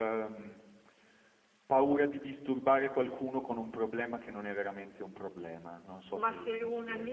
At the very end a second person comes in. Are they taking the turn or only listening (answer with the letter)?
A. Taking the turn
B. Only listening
A